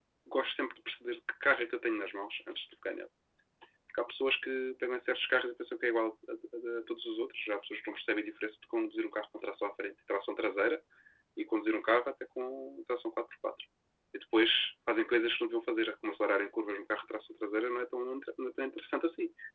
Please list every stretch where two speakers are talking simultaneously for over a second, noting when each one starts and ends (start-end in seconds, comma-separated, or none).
none